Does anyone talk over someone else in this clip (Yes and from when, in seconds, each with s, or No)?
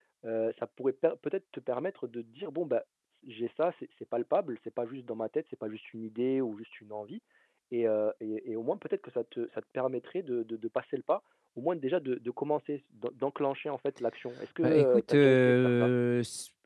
Yes, from 14.6 s